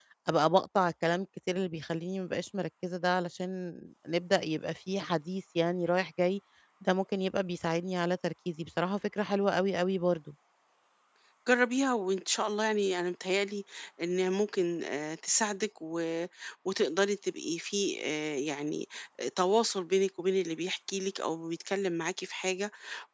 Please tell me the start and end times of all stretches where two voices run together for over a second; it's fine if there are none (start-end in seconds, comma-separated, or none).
none